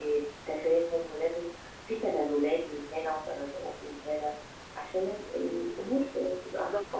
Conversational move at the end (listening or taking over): taking over